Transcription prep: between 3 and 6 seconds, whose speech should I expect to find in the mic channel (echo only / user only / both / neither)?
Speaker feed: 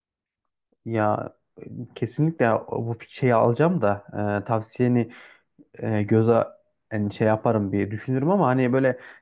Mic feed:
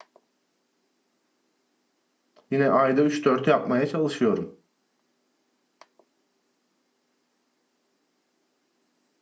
user only